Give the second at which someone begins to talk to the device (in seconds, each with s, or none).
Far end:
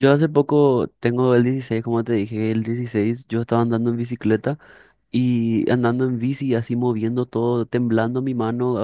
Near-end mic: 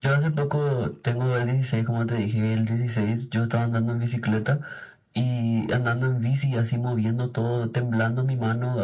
none